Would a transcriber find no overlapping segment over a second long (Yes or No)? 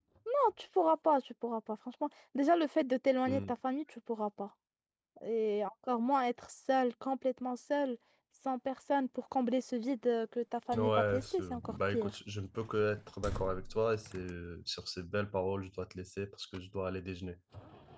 No